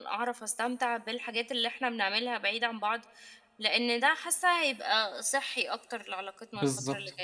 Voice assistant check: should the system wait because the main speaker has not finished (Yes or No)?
No